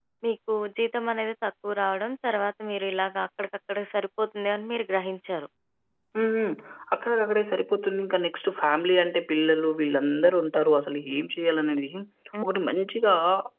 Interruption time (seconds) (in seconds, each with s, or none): none